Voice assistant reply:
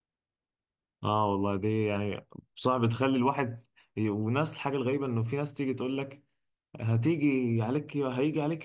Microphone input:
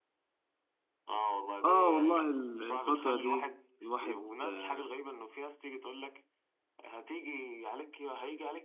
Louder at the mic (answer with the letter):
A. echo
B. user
B